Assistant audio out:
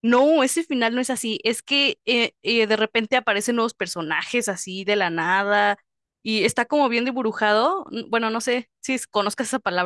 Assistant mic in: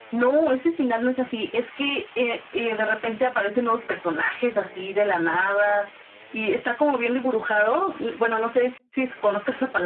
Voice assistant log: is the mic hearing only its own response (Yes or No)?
Yes